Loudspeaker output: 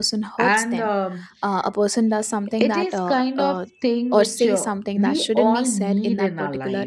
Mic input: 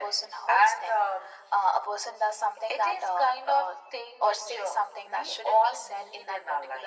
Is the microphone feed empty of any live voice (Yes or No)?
Yes